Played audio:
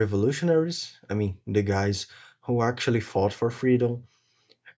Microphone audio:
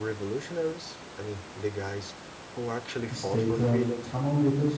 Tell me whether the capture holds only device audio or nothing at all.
No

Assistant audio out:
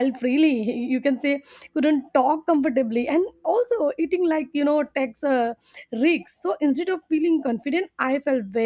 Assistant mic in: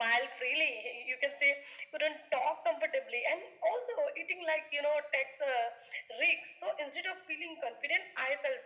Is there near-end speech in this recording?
No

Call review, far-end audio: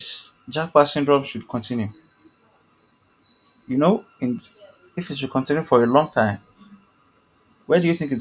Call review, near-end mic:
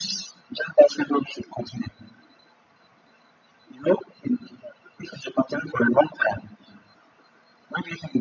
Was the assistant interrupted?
No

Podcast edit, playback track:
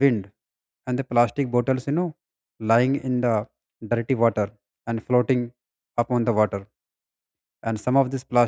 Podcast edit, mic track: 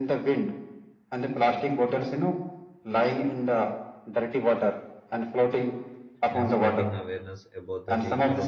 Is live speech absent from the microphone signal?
No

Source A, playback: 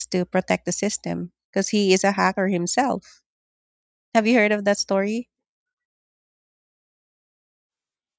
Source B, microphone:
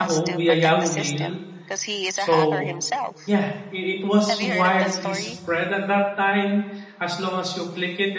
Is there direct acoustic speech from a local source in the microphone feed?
Yes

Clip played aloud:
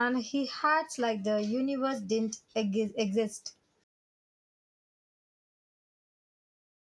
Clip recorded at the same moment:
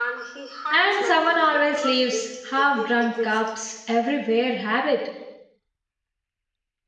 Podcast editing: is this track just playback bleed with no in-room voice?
No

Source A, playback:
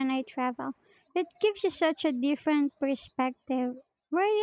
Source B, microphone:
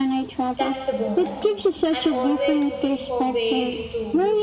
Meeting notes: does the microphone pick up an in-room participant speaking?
Yes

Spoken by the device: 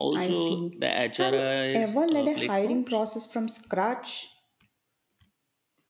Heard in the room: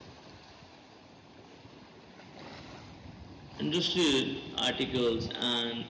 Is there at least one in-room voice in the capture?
Yes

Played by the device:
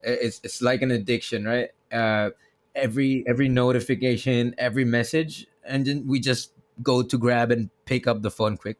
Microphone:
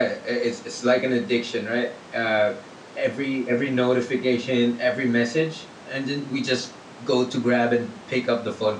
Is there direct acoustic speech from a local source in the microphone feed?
No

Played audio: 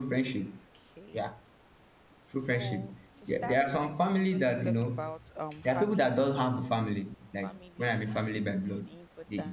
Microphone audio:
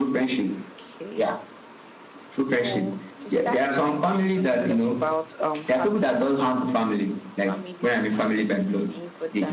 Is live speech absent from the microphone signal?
Yes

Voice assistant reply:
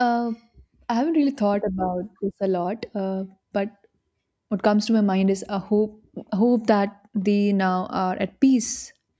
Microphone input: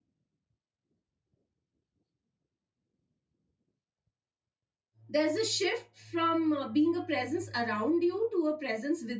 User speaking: Yes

